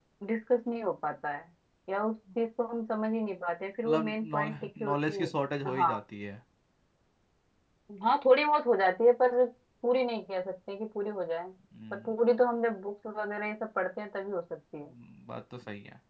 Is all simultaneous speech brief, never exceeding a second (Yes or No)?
No